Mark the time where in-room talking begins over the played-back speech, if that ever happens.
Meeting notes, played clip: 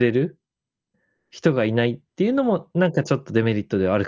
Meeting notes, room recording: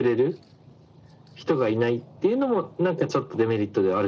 none

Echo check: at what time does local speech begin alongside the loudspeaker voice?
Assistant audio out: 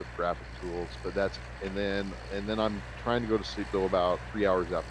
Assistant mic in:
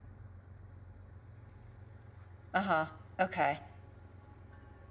2.5 s

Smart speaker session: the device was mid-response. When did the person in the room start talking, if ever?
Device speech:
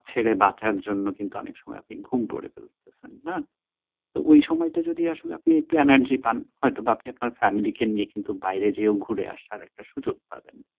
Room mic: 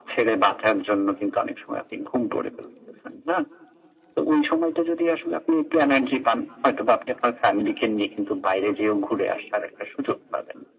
none

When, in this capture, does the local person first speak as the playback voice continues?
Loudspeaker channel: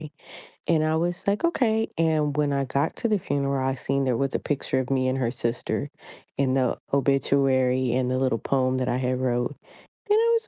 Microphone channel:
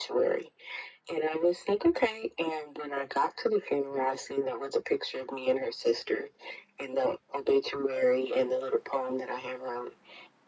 none

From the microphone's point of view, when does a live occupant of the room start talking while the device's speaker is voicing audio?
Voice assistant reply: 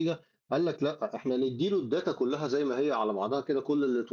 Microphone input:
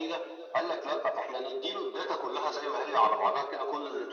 none

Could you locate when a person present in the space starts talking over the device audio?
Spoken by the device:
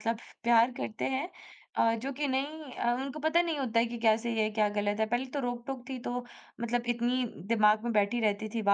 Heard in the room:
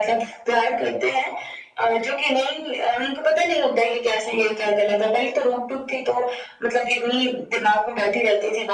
none

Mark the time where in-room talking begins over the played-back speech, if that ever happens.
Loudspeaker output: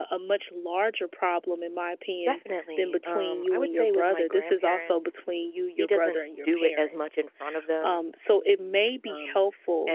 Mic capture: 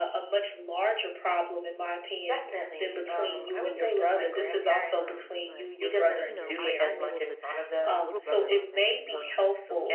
5.0 s

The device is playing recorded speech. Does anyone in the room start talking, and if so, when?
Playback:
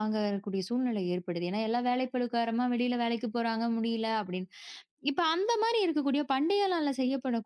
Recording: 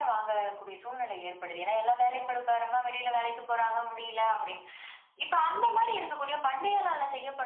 none

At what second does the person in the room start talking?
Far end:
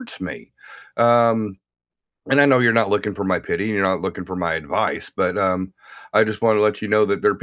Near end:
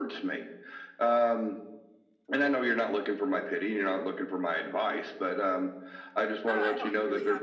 6.4 s

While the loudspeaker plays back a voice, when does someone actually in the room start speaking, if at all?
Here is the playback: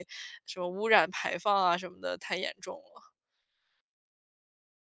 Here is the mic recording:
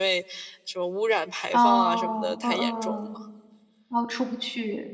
1.5 s

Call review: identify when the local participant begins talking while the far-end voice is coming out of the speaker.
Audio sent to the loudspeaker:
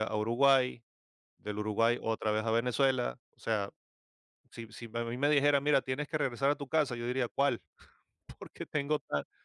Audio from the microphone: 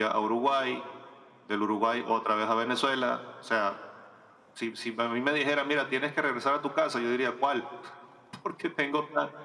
none

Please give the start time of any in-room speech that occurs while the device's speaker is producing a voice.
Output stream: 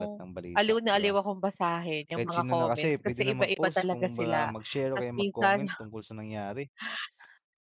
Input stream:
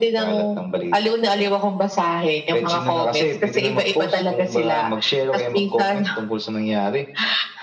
none

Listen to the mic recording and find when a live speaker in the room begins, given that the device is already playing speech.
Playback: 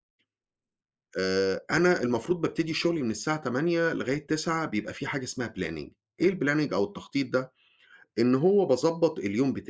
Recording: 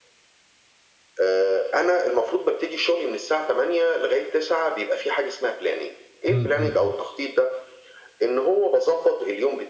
6.3 s

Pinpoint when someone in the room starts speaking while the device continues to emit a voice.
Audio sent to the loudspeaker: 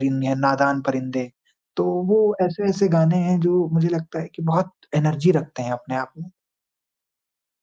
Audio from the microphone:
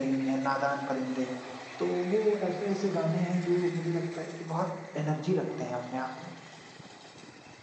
none

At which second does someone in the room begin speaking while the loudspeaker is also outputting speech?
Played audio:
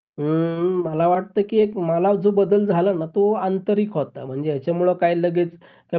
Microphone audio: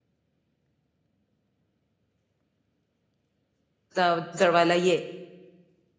4.0 s

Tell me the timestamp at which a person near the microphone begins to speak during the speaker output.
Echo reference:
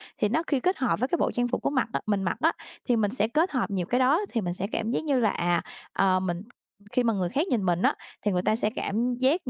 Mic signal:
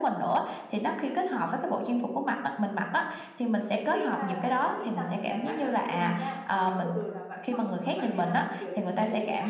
3.9 s

